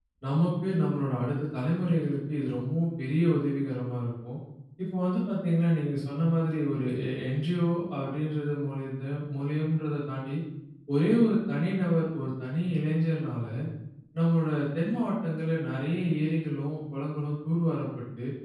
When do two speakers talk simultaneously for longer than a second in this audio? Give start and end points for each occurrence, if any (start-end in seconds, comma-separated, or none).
none